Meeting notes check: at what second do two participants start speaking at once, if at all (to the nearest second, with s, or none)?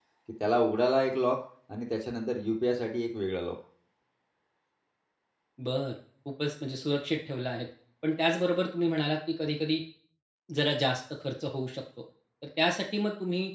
none